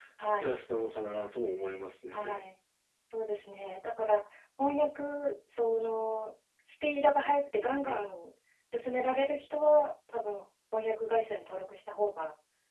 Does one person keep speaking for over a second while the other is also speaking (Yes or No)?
No